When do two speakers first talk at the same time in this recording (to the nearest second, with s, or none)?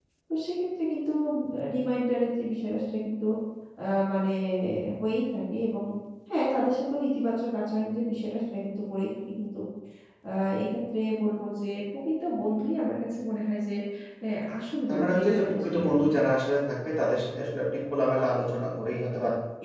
15 s